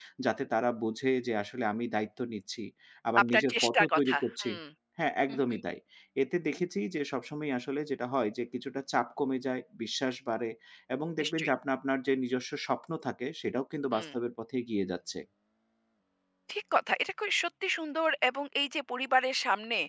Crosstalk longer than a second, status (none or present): present